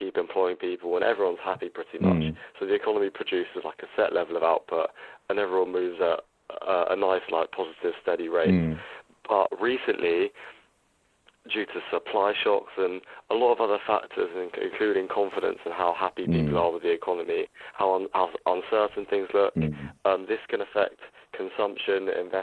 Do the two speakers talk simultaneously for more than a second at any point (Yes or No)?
No